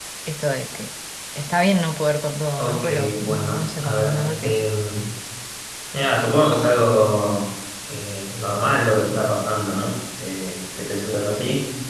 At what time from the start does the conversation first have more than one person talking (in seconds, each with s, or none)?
2.6 s